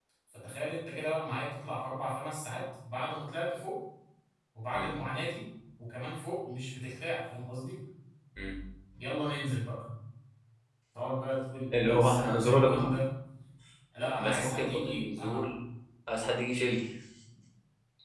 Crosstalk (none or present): present